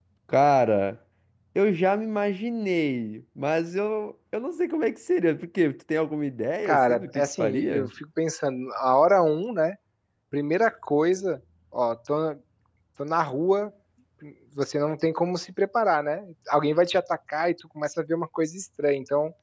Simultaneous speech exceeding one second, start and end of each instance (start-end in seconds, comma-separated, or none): 6.7-7.9